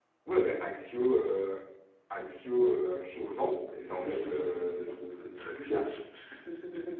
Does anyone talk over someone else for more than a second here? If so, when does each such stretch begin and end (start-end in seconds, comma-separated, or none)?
3.8-5.7